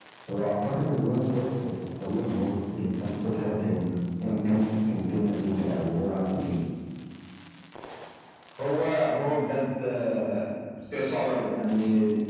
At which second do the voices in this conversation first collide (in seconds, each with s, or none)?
none